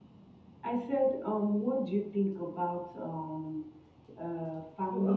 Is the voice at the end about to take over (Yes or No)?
Yes